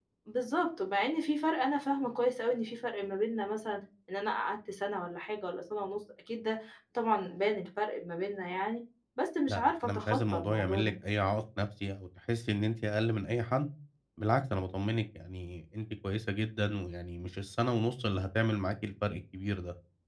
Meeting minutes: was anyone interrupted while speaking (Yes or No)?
Yes